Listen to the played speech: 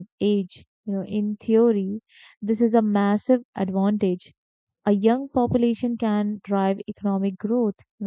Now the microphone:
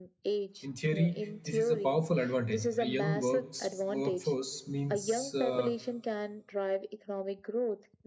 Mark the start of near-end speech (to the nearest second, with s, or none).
1 s